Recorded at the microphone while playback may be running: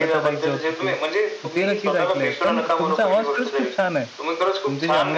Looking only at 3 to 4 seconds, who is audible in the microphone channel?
both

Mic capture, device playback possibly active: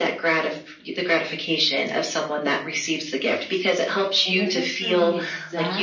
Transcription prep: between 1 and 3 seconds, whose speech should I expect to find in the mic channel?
echo only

